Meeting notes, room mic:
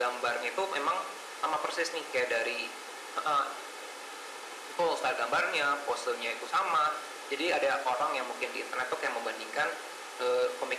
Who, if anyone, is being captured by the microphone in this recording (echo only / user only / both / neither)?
echo only